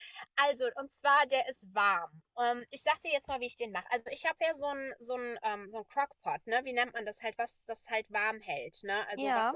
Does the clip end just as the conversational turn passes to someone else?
No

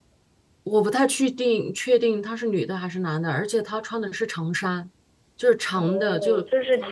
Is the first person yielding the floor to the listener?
Yes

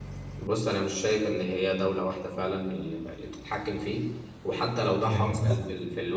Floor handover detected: No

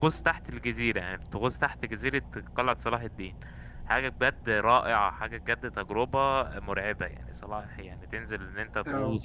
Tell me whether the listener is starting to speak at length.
No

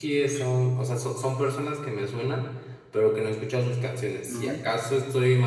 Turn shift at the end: No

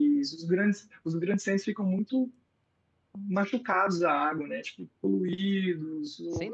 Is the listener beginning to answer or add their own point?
No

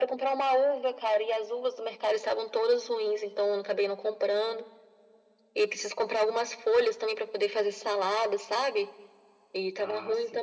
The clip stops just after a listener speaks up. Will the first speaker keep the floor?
Yes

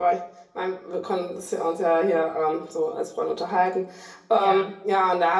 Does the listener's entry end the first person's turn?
No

